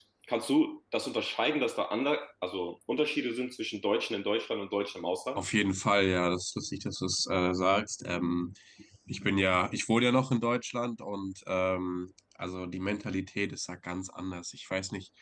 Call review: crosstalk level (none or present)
none